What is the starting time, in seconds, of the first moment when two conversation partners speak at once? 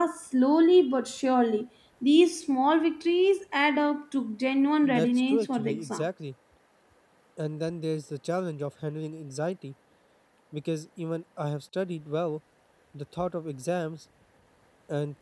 4.8 s

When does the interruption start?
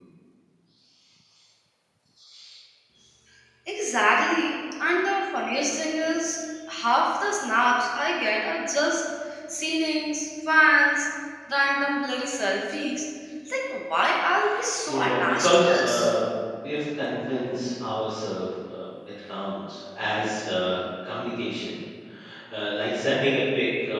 14.9 s

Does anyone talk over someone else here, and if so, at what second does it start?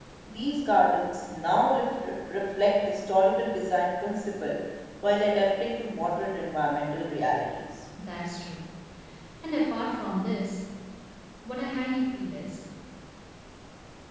none

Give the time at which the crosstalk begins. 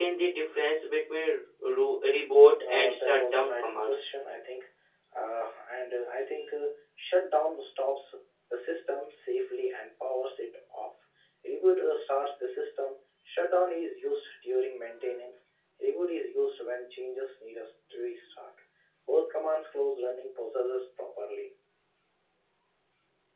2.6 s

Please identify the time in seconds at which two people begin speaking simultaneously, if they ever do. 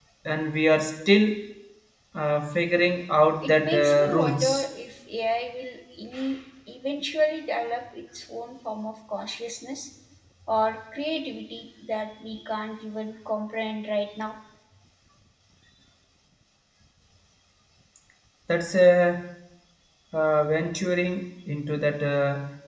3.4 s

